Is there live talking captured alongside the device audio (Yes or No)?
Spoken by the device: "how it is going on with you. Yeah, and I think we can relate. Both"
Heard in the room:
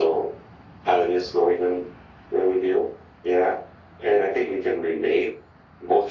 No